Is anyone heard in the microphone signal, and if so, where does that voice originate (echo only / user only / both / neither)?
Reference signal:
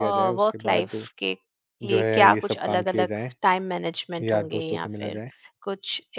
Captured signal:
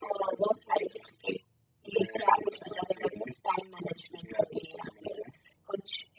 echo only